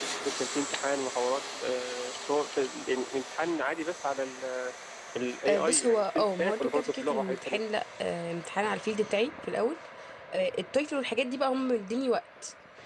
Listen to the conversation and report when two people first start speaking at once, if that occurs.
5.5 s

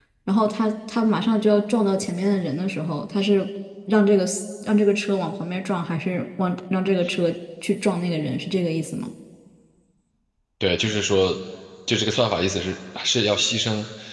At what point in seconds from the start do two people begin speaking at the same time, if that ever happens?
none

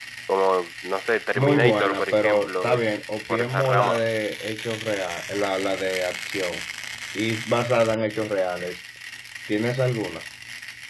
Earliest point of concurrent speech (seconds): 1.4 s

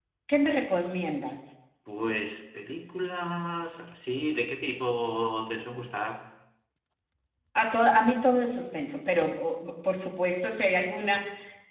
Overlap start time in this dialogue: none

